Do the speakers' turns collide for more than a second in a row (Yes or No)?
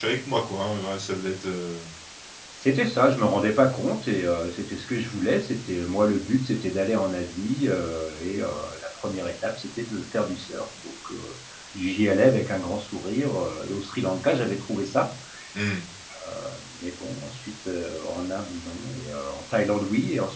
No